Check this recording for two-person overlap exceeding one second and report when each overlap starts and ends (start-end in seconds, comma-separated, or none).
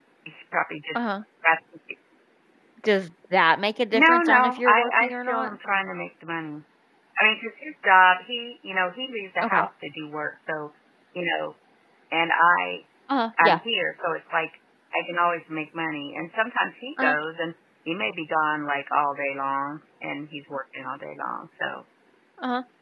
3.9-5.5